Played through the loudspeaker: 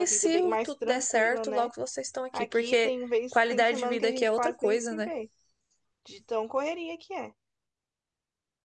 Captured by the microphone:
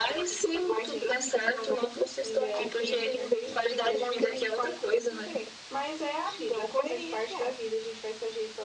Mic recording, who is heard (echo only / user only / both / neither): both